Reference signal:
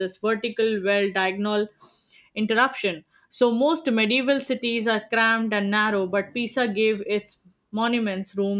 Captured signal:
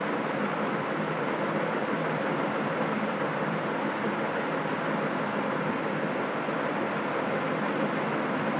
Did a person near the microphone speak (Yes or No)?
No